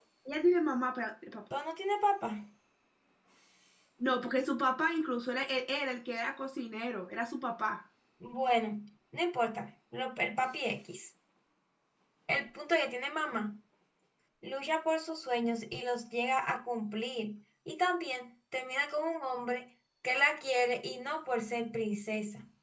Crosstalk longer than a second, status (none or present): none